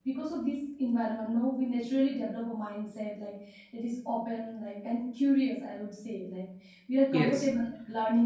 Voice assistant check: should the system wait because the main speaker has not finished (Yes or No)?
Yes